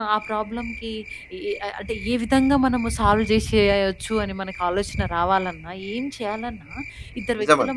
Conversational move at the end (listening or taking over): listening